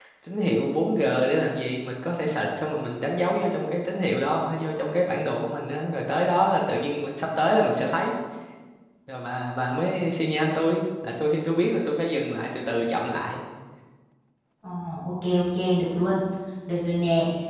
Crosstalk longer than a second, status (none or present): none